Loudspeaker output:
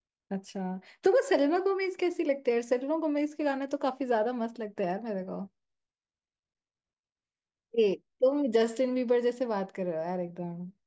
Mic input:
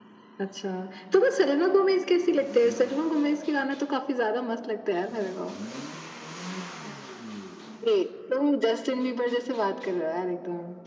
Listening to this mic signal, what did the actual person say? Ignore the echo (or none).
none